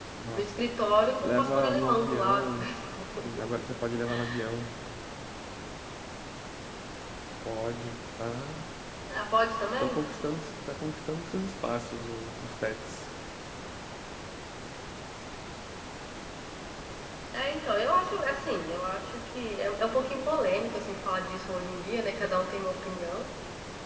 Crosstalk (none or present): present